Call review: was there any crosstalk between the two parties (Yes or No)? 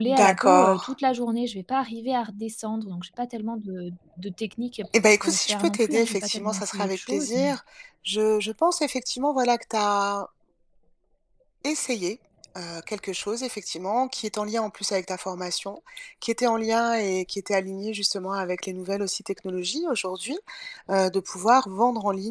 Yes